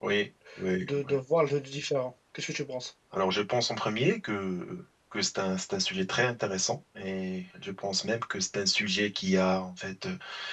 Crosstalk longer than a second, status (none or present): none